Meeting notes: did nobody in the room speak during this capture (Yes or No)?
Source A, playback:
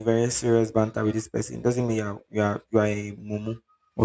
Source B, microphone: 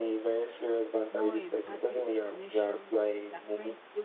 No